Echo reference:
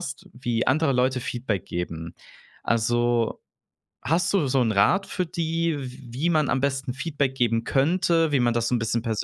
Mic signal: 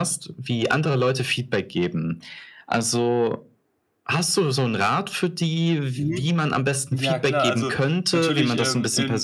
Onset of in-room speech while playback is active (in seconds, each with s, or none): 5.9 s